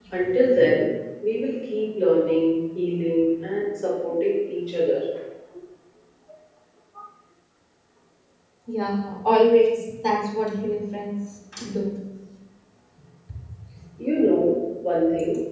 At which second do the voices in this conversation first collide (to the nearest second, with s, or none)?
none